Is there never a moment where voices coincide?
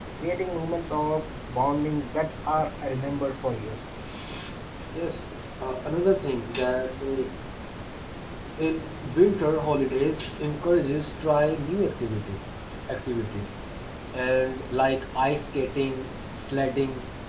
Yes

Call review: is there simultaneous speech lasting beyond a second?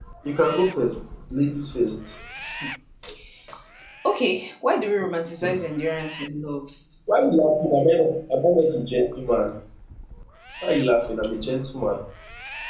No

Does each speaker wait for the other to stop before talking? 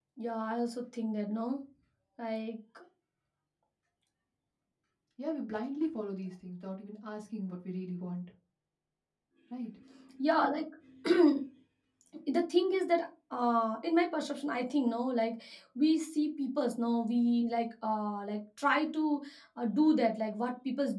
Yes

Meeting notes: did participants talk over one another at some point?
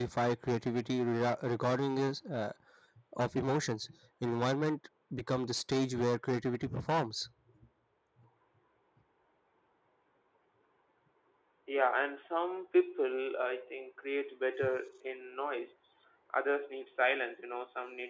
No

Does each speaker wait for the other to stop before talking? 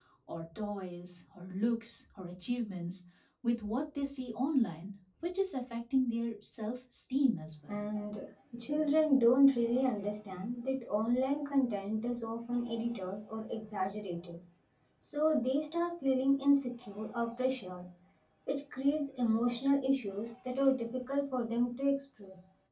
Yes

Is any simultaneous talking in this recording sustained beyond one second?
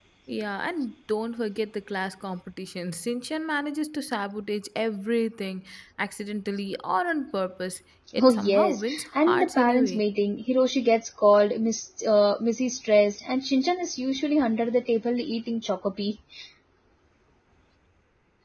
Yes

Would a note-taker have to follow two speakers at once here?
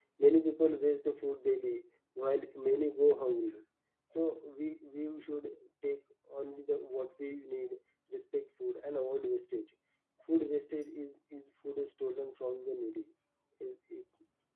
No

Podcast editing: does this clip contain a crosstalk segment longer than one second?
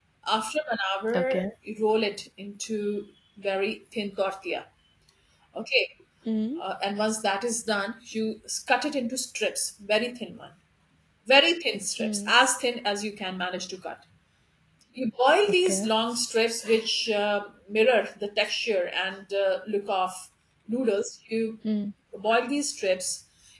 No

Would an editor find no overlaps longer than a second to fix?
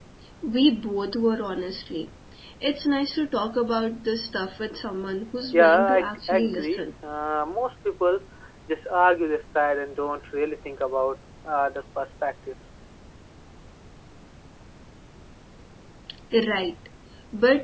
No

